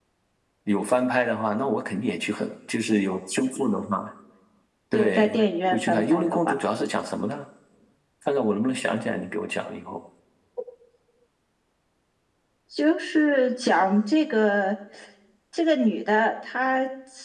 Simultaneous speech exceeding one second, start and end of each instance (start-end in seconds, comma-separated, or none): 4.9-6.6